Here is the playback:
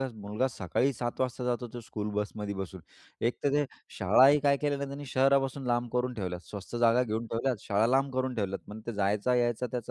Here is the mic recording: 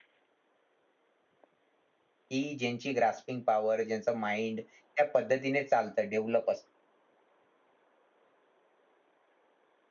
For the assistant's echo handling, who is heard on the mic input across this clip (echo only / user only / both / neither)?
user only